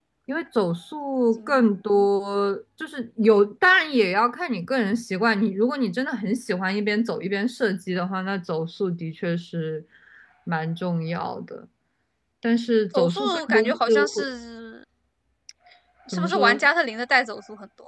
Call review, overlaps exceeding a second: present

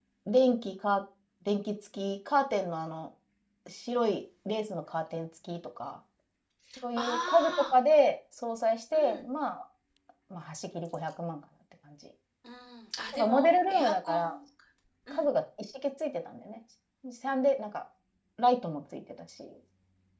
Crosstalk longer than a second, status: present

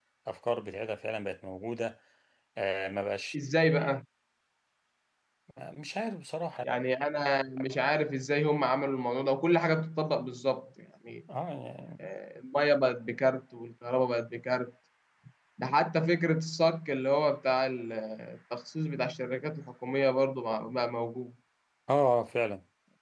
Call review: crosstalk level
none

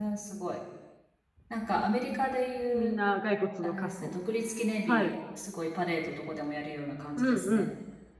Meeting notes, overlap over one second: none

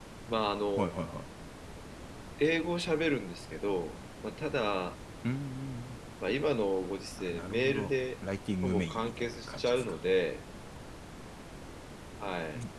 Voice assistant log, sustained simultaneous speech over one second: present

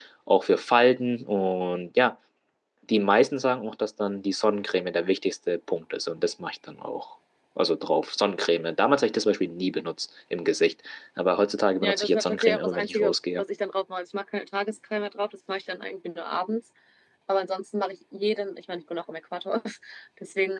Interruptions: present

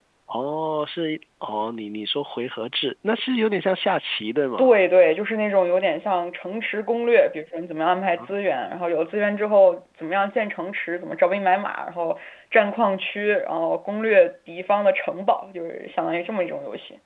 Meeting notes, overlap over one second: none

